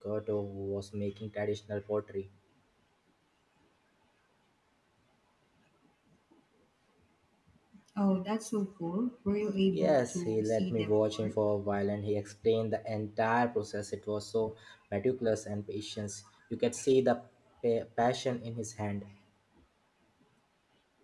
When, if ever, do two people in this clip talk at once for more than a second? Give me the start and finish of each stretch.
9.7-11.3

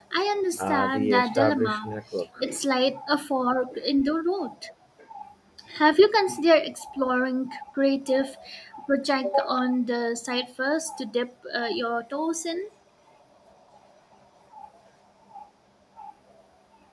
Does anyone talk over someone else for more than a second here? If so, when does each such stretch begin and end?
0.6-1.9

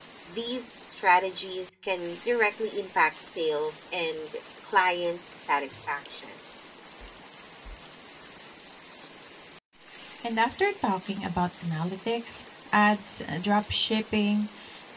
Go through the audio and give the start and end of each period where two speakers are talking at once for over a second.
none

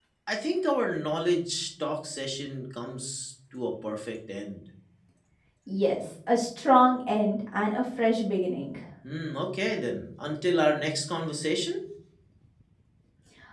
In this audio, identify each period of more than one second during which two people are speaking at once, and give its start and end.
none

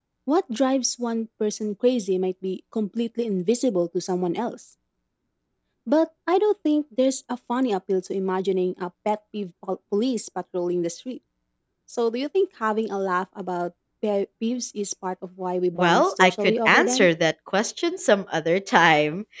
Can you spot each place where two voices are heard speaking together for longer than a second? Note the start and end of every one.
15.8-17.1

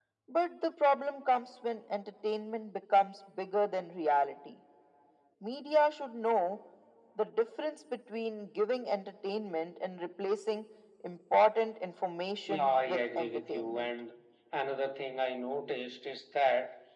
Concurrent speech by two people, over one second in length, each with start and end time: 12.5-13.9

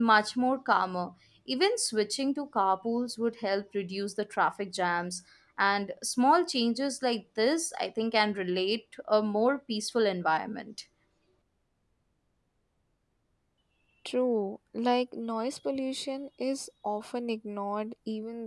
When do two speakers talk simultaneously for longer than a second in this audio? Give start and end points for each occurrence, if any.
none

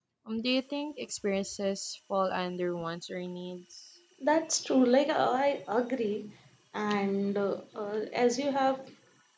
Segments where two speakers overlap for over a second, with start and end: none

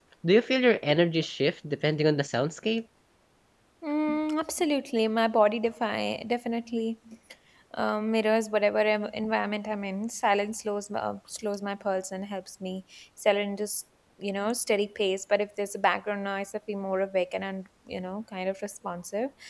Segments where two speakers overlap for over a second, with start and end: none

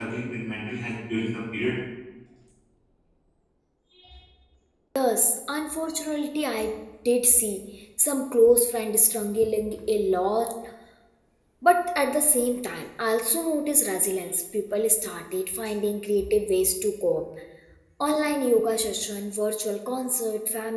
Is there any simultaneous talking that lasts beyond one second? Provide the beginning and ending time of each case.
none

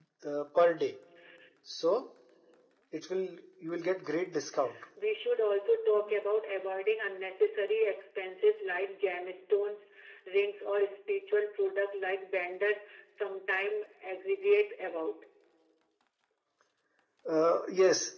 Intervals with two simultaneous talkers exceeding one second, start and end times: none

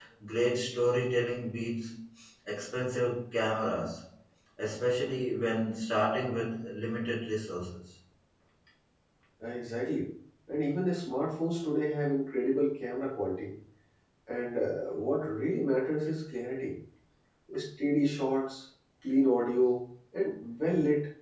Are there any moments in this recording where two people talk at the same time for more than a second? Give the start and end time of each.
none

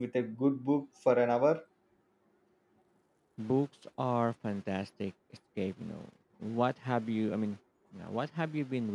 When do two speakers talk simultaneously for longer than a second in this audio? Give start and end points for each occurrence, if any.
none

